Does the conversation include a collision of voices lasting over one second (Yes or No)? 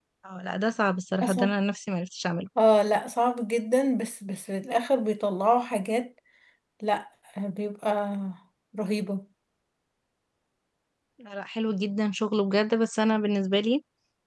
No